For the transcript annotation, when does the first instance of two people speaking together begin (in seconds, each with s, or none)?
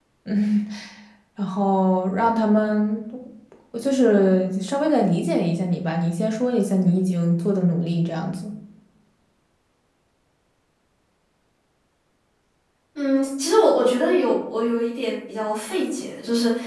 none